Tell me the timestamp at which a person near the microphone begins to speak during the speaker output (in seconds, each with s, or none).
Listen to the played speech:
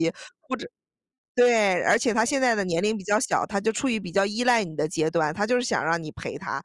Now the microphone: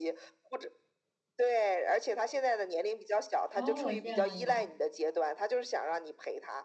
3.5 s